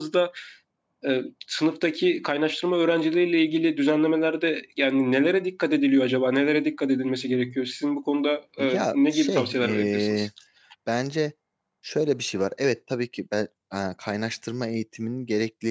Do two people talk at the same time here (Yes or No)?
Yes